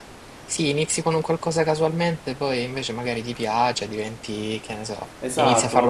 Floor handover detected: Yes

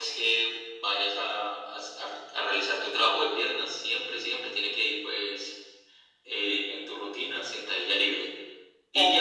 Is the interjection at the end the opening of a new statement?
No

